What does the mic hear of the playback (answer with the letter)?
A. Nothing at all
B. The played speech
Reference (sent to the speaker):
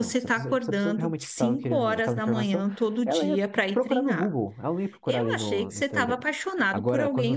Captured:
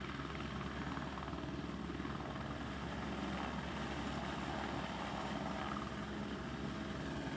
A